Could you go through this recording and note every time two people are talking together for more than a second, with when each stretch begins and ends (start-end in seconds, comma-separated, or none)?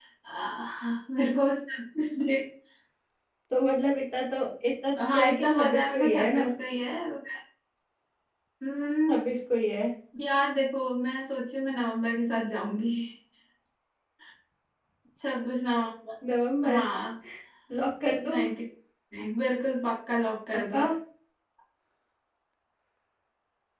5.1-6.5